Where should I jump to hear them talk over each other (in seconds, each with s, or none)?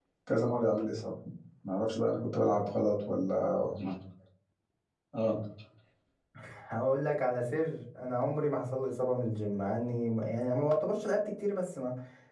none